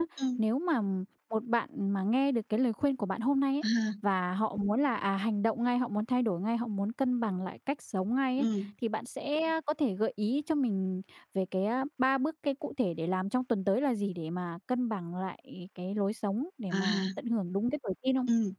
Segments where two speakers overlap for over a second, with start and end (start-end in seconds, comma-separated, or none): none